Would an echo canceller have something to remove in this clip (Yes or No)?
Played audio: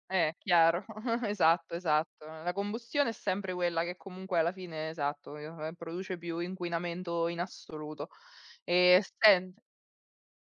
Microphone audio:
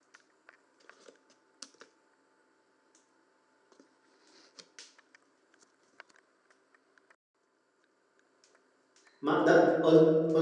No